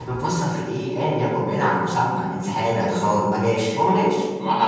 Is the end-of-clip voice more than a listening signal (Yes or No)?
Yes